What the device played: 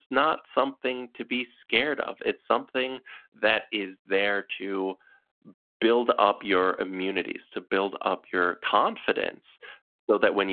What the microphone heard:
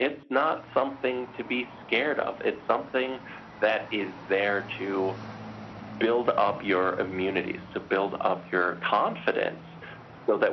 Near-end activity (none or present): none